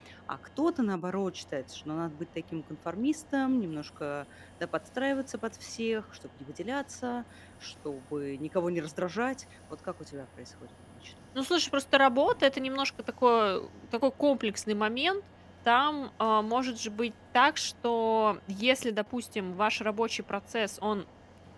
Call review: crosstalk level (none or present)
none